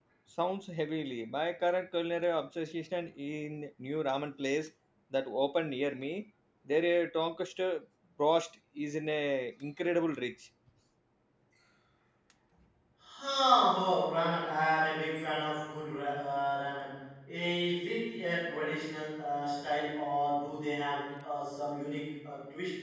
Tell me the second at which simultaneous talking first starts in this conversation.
none

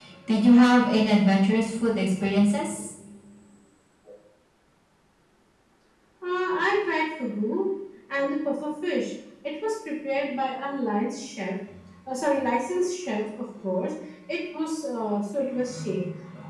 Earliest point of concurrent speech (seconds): none

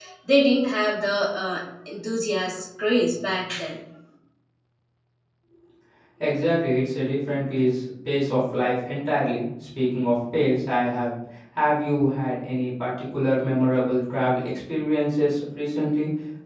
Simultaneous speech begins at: none

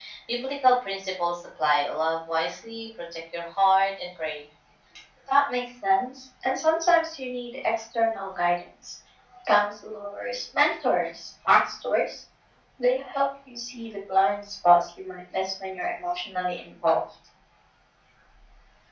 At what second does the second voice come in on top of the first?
none

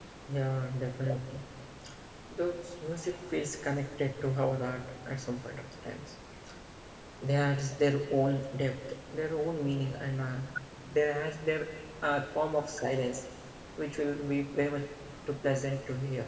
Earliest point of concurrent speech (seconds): none

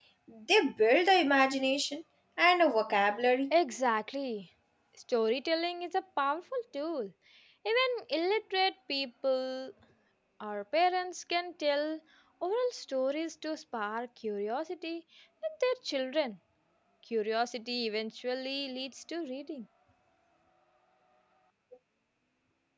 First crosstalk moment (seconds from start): none

